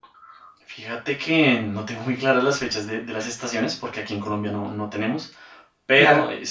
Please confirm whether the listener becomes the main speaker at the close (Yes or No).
No